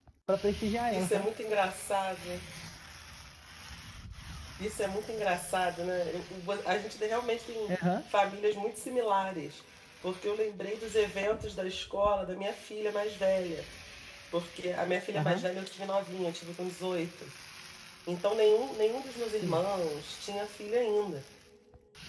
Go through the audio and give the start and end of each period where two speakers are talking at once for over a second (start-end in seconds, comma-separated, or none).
none